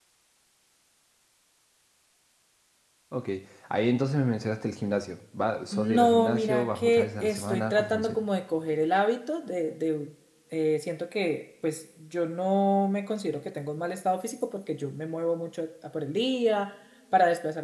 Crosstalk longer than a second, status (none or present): present